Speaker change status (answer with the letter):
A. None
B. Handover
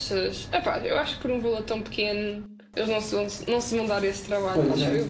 B